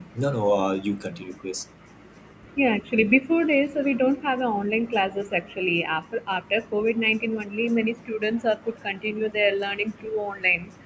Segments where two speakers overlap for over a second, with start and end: none

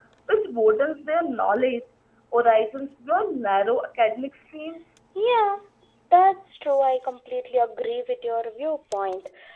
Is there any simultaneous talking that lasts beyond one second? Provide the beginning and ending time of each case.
none

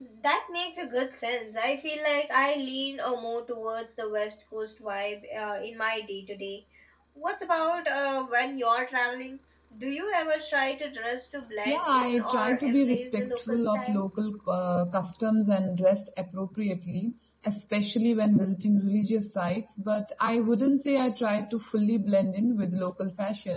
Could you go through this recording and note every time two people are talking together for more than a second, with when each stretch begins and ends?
11.7-14.0

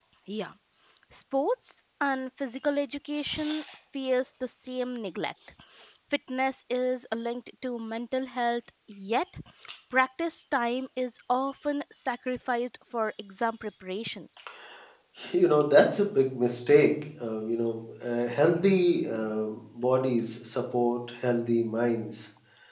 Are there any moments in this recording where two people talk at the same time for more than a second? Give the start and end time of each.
none

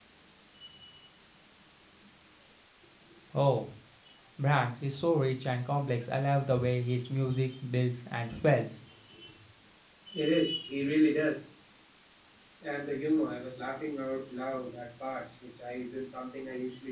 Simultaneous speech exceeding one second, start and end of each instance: none

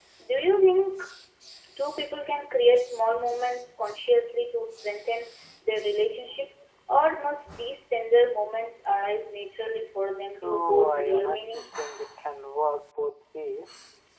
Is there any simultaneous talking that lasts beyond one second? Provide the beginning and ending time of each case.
10.4-11.6

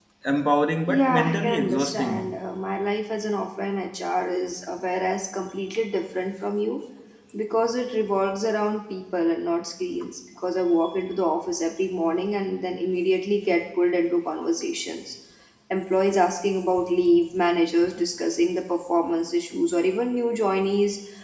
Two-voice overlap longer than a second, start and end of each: 0.9-2.4

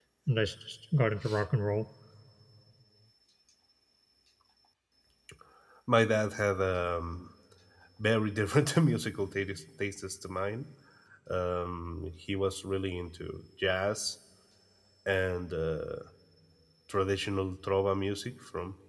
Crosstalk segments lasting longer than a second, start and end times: none

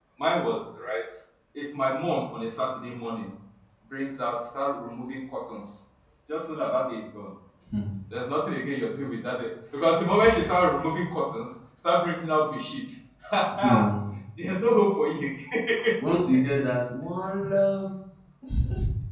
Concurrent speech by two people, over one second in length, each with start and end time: none

